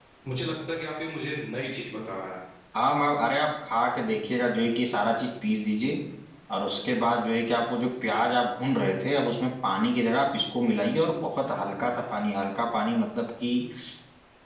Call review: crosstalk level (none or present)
none